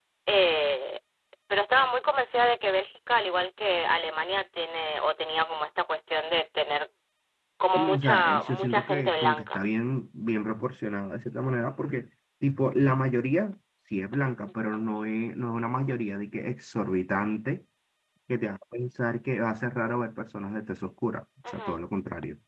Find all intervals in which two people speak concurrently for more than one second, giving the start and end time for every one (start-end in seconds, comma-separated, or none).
7.8-9.6